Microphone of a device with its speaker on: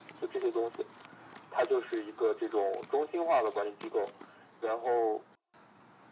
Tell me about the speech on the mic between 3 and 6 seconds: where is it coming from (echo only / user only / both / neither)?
echo only